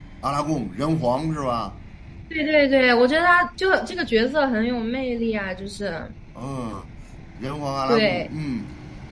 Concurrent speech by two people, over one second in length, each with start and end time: none

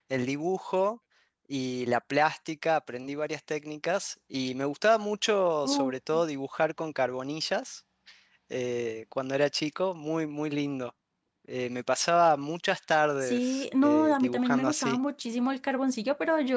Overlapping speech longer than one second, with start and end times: 13.2-15.0

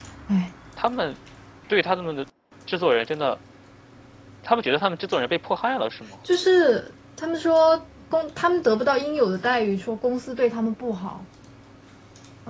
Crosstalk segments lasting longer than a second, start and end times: none

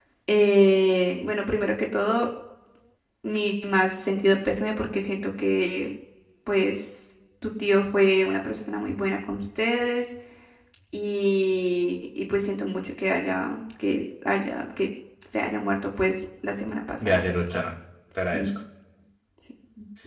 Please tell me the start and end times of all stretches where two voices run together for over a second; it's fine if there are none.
none

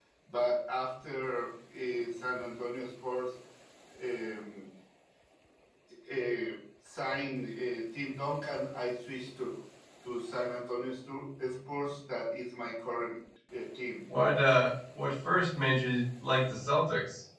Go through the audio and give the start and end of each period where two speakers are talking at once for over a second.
none

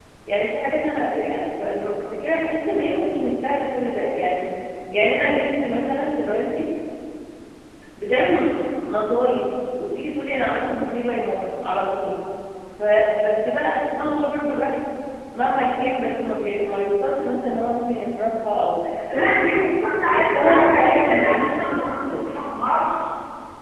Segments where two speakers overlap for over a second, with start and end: 20.1-22.2

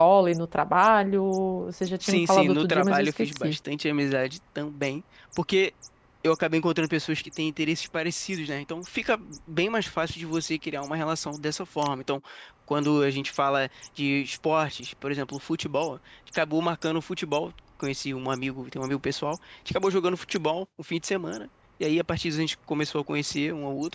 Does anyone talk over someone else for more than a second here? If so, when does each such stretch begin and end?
2.0-3.6

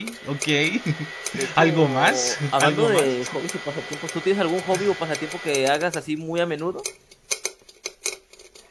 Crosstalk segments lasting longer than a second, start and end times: 1.6-3.1

